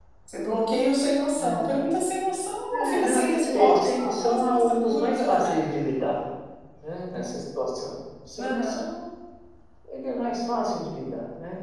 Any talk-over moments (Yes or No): Yes